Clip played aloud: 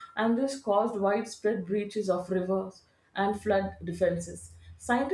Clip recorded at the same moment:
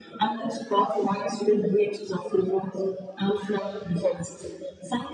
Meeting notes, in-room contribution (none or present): none